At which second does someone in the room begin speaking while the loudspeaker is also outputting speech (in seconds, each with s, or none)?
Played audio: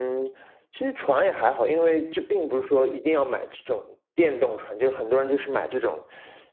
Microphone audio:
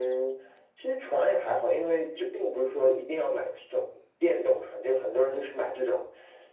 none